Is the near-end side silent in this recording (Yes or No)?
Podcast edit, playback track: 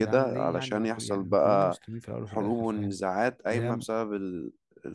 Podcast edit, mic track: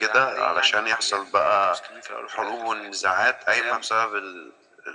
Yes